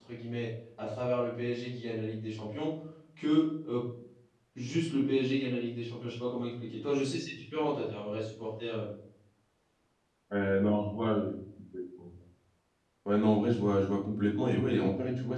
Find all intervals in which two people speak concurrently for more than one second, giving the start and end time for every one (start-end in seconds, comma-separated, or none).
none